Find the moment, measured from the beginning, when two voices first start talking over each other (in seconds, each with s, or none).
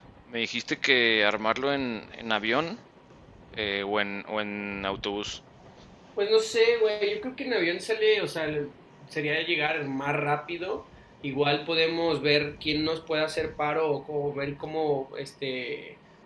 none